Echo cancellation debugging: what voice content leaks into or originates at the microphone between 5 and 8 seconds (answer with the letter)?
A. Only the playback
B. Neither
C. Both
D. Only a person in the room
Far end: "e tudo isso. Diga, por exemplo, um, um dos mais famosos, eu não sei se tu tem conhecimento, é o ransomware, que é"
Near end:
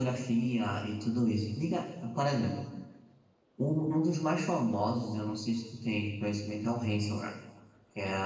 A